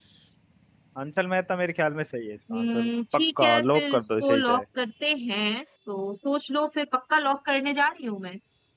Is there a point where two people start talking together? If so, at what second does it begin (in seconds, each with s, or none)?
2.5 s